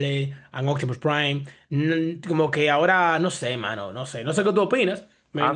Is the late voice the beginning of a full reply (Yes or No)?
Yes